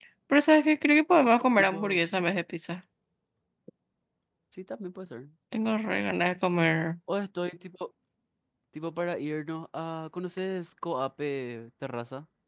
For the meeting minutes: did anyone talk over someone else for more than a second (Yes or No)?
No